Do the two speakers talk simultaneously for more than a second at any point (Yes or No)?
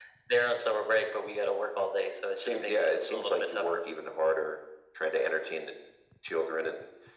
Yes